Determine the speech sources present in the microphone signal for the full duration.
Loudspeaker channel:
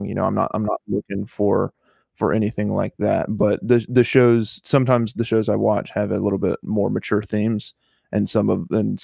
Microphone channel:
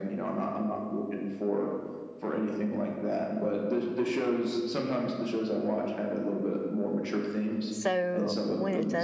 both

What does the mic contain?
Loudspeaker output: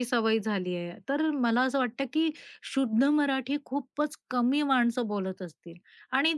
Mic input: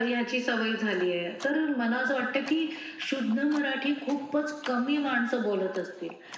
echo only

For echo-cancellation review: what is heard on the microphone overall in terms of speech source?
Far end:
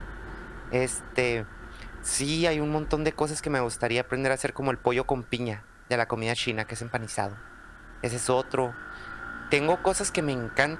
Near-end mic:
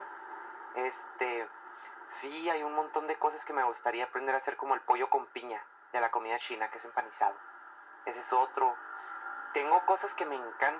echo only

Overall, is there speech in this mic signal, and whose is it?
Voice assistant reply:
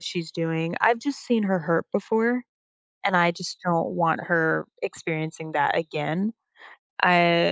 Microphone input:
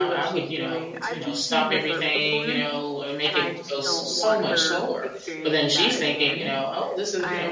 both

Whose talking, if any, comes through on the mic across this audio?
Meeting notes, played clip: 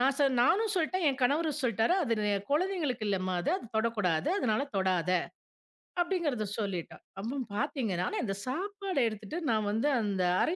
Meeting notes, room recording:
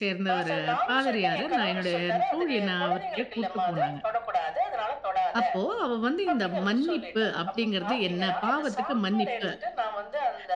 both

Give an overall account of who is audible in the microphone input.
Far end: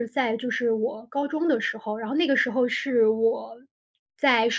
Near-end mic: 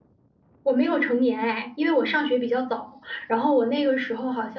user only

